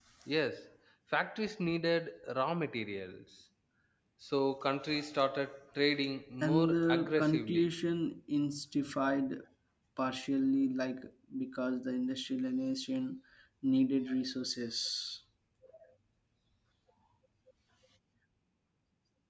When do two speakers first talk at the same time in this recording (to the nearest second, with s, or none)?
6 s